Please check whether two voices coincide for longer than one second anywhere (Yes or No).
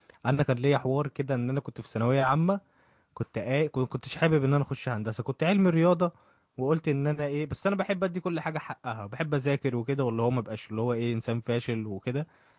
No